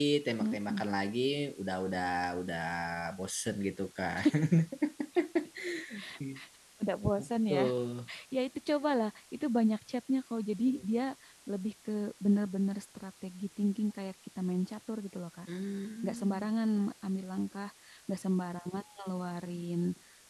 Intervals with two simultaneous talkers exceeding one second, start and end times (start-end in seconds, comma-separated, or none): none